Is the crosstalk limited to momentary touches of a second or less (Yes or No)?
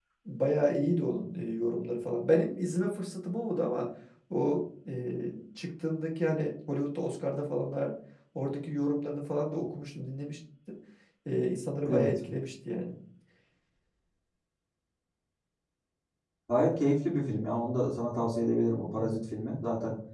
Yes